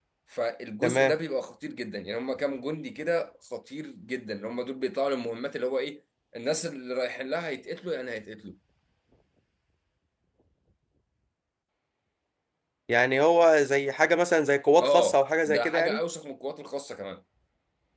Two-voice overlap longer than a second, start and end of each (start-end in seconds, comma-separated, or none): 14.8-16.0